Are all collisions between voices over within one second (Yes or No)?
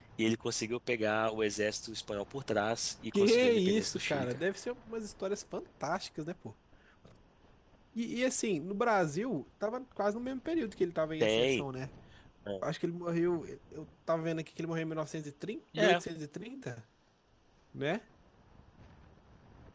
No